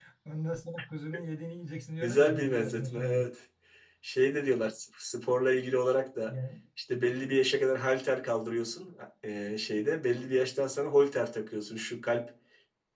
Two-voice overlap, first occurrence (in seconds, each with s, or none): 2.0 s